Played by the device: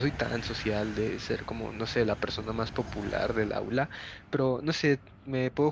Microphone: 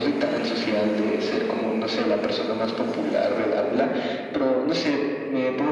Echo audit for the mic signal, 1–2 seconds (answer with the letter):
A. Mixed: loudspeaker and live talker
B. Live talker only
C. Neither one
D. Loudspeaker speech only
D